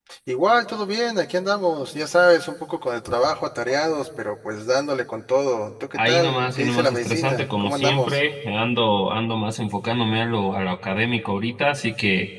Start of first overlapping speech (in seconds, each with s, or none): 6.0 s